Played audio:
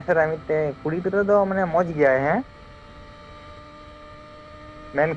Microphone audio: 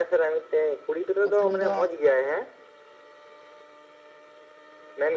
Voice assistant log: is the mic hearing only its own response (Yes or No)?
No